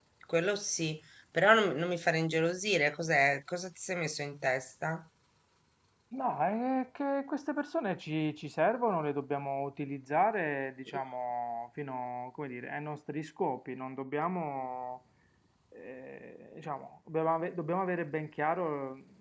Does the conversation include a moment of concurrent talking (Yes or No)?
No